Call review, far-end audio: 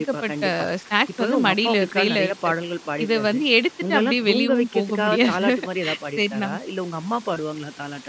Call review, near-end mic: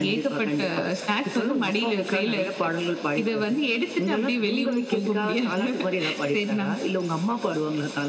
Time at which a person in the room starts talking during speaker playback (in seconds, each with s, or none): none